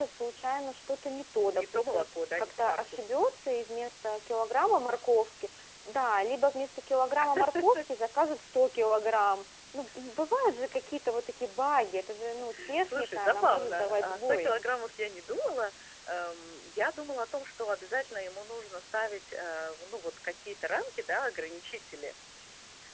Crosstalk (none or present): present